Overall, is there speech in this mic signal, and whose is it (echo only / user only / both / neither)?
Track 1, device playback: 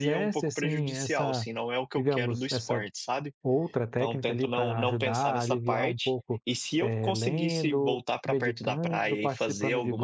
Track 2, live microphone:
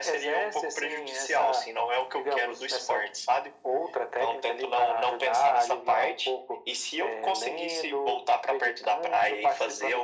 echo only